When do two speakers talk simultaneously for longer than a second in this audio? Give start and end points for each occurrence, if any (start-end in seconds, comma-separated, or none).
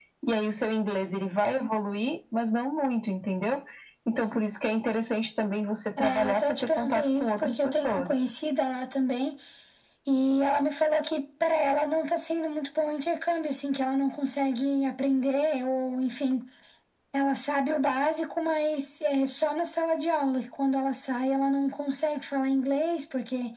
6.0-8.2